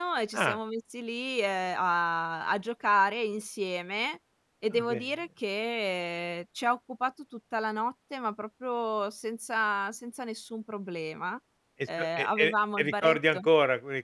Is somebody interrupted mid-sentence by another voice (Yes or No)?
Yes